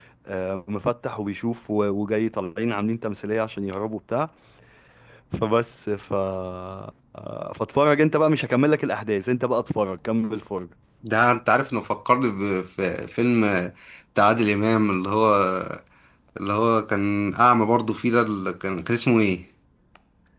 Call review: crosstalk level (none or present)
none